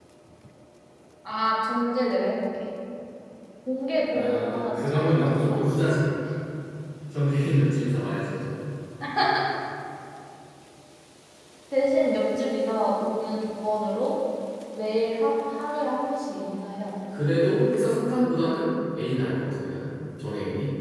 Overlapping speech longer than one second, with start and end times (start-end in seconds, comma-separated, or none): 4.1-5.7